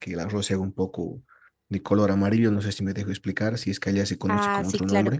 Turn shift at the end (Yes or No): Yes